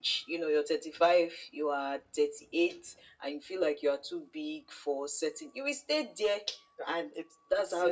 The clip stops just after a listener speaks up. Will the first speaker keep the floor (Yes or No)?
No